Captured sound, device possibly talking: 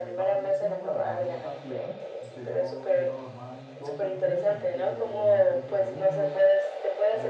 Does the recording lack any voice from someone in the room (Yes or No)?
No